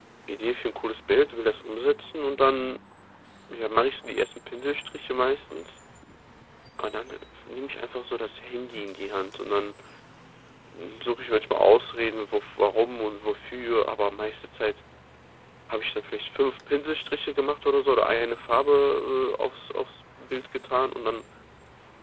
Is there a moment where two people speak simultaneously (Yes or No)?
No